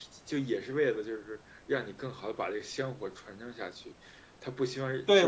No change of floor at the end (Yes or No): No